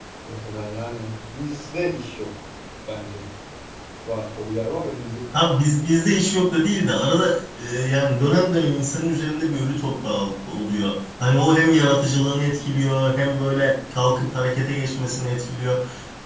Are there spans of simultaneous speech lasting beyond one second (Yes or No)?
No